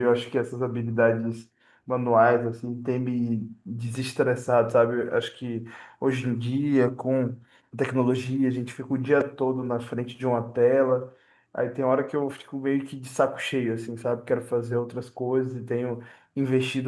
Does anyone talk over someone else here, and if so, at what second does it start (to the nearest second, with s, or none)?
none